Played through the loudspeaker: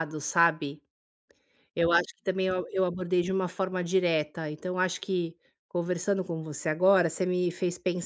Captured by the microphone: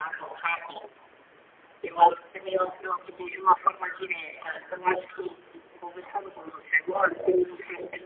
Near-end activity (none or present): none